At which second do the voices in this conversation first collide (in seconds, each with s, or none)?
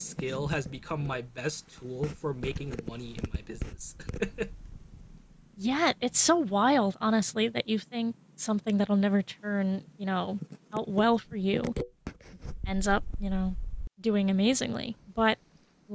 none